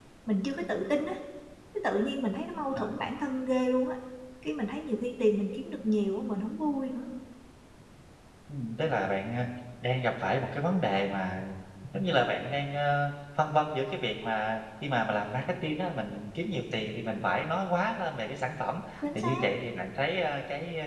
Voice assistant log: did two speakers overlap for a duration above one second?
No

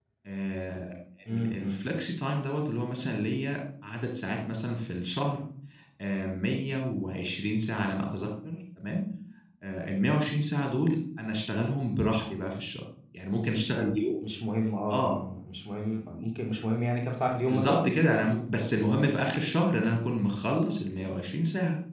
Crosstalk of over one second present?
No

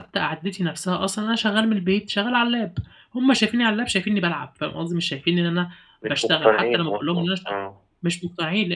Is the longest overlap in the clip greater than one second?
Yes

